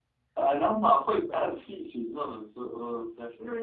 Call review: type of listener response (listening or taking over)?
taking over